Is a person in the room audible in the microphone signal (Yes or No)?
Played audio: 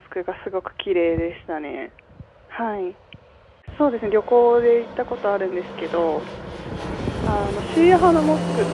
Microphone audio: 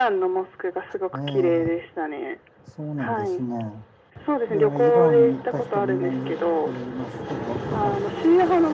Yes